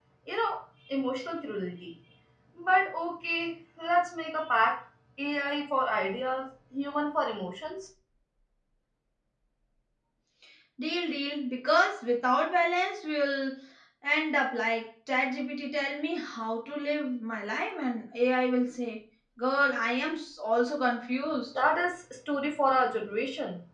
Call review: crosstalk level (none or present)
none